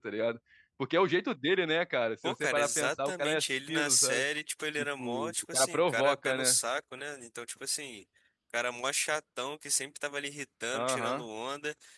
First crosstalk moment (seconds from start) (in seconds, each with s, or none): 2.2 s